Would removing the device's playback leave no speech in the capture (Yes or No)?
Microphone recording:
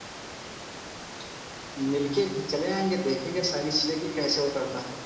Yes